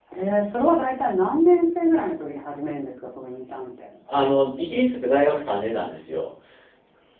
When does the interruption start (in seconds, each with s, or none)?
none